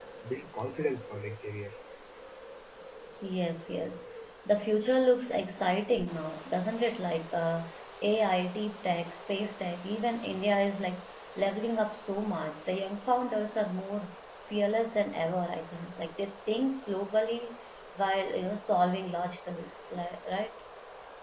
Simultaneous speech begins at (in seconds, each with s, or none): none